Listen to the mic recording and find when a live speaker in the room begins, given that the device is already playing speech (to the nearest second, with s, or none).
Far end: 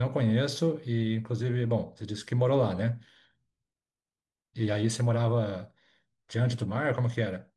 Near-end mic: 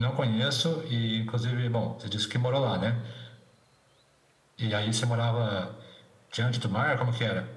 none